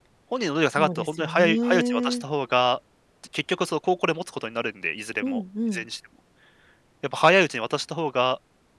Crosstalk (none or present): present